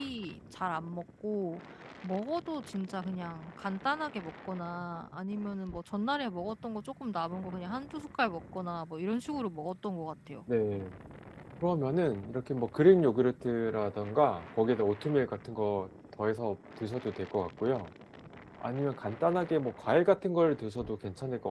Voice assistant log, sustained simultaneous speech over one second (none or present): none